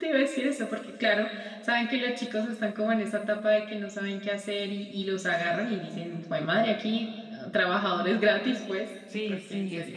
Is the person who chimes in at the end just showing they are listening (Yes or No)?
No